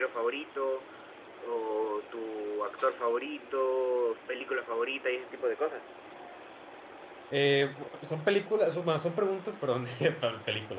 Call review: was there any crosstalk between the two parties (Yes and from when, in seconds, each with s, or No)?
No